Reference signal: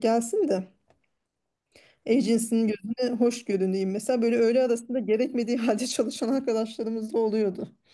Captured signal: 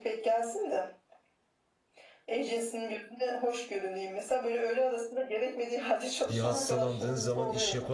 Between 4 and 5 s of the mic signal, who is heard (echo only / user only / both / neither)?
echo only